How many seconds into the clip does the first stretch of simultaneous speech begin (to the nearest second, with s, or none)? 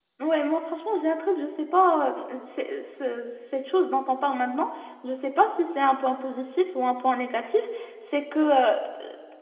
none